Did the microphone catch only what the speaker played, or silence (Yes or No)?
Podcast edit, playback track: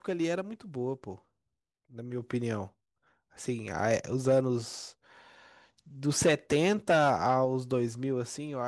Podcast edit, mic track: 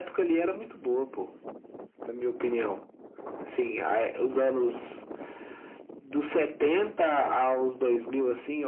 Yes